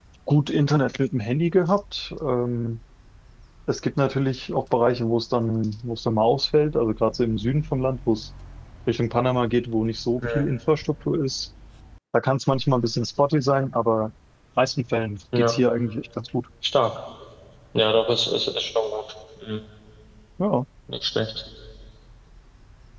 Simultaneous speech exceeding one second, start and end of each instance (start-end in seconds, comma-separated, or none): none